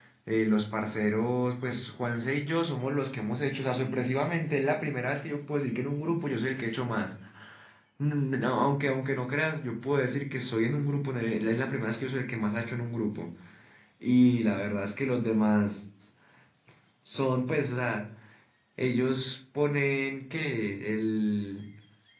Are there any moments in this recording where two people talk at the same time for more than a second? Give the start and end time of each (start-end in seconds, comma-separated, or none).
none